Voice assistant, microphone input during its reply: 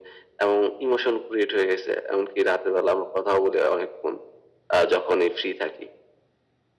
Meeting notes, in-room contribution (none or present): none